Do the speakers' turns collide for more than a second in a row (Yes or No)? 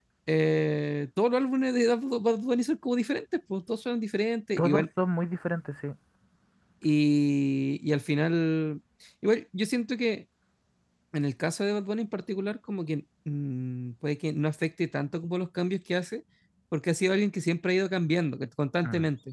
No